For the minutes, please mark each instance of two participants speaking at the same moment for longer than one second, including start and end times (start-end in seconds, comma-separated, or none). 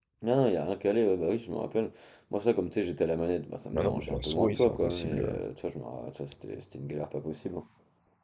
3.7-5.3